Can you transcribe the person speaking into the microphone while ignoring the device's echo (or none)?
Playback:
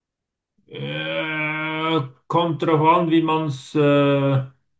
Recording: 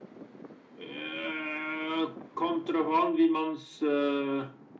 none